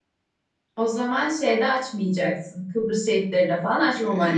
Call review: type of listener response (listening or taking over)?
taking over